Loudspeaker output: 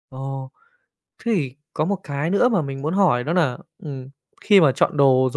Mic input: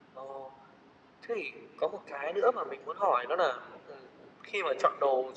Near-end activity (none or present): none